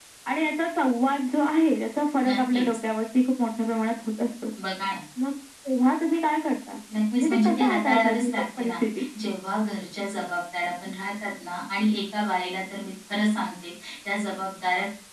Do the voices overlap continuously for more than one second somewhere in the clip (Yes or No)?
Yes